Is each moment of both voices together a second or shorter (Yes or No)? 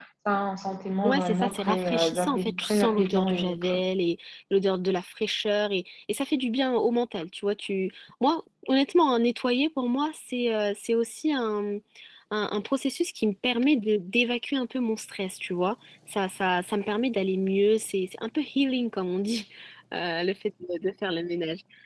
No